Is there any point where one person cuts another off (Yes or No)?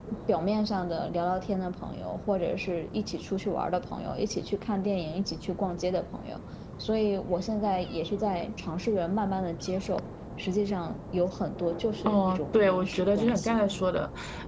Yes